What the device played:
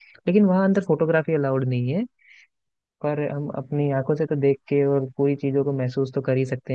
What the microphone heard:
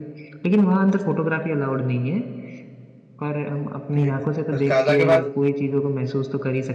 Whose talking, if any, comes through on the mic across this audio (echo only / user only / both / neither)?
both